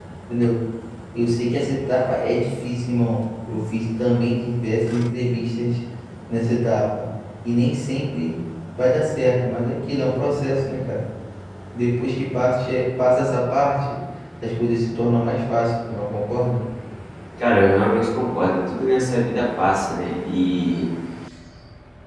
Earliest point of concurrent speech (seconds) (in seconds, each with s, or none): none